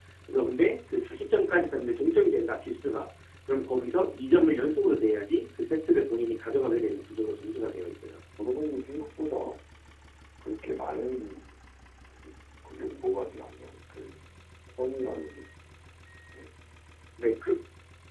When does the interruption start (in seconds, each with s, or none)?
none